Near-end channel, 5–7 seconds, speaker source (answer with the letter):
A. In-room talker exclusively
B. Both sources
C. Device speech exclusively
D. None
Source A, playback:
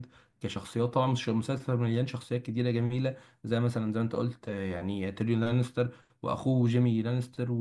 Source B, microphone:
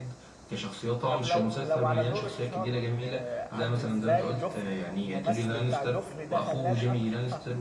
B